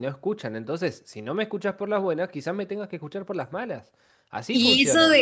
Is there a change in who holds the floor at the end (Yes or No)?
Yes